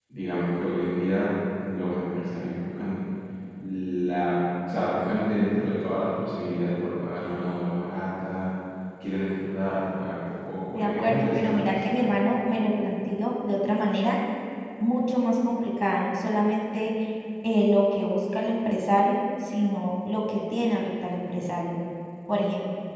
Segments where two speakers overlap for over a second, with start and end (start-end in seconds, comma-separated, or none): 10.7-12.0